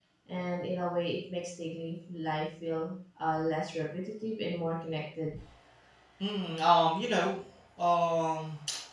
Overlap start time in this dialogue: none

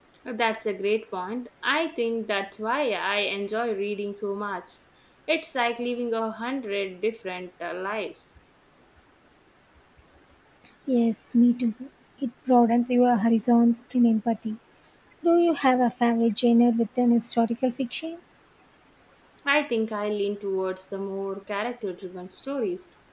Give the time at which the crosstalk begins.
none

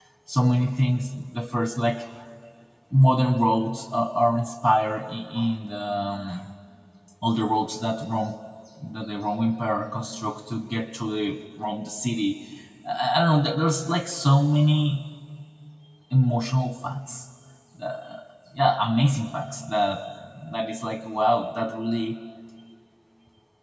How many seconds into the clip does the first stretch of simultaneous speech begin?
none

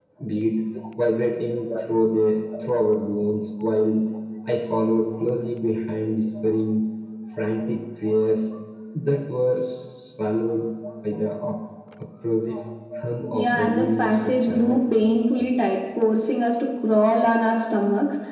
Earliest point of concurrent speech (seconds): 13.3 s

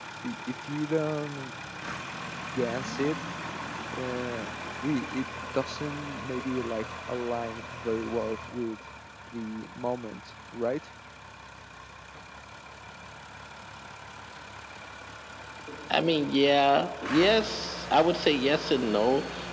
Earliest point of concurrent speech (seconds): none

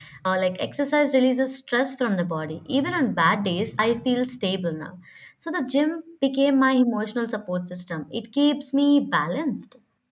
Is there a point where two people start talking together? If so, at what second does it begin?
none

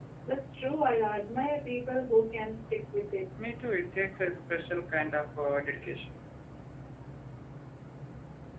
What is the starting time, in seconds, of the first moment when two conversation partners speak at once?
none

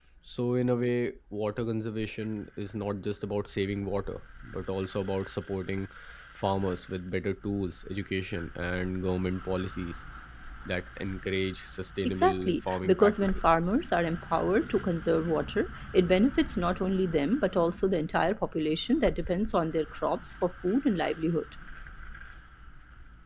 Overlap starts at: 12.0 s

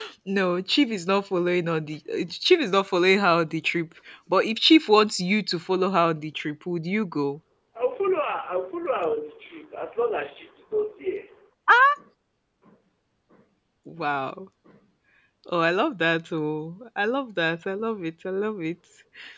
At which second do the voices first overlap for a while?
none

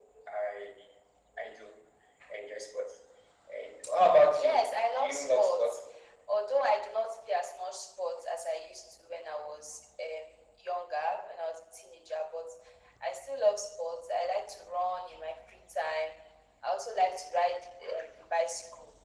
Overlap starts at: 4.3 s

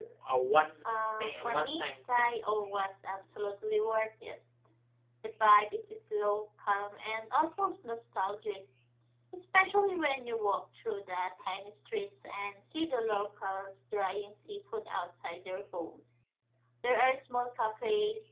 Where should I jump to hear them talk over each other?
0.9 s

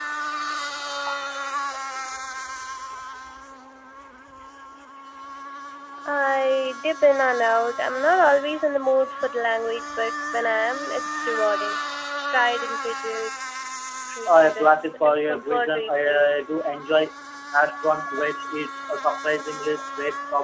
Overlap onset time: 14.3 s

